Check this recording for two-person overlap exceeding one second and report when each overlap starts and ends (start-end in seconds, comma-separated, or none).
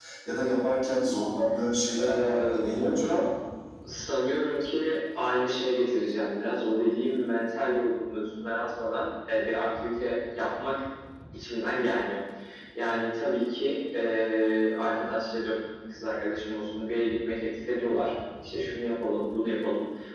2.0-3.3